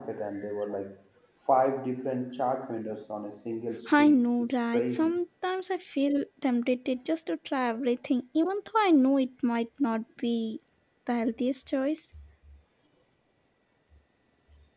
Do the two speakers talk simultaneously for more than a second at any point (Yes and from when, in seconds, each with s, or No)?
Yes, from 3.9 s